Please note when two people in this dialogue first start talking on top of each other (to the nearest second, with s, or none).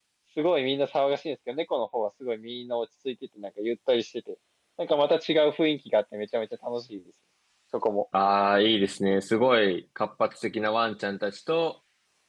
none